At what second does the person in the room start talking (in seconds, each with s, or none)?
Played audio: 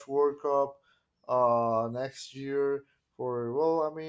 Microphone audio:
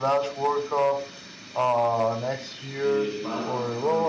2.9 s